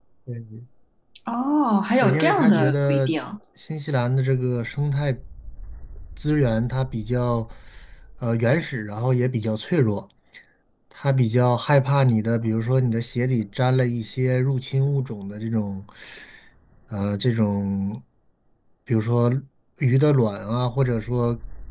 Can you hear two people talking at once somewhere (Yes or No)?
Yes